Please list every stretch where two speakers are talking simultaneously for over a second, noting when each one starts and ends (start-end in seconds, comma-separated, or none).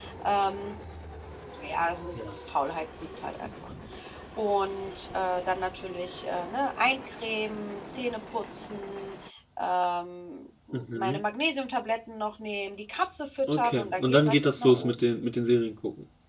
13.5-15.1